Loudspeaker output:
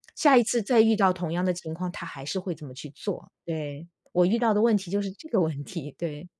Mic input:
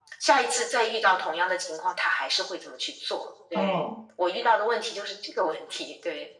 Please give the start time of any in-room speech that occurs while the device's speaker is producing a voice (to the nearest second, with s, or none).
4 s